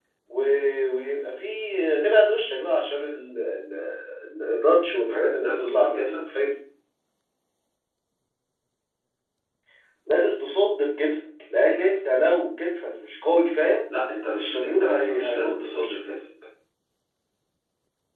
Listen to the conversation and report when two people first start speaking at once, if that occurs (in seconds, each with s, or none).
5.0 s